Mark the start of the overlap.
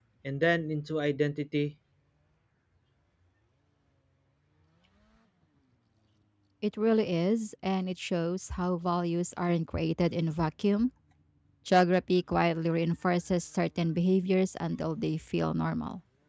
none

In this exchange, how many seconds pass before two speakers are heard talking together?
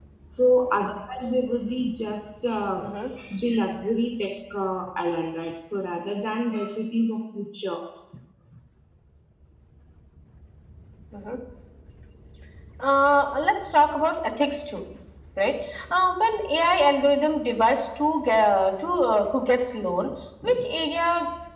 none

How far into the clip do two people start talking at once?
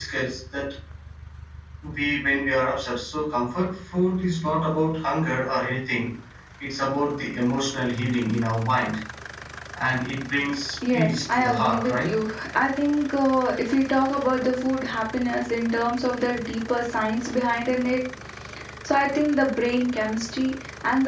10.8 s

